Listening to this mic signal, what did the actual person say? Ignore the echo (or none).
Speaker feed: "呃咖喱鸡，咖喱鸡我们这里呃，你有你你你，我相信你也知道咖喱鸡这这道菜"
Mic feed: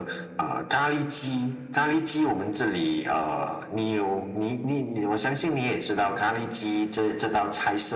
none